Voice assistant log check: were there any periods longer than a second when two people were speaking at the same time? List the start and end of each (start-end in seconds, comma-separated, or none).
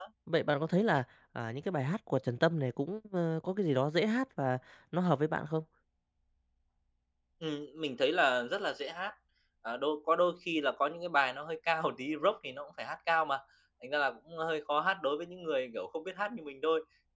none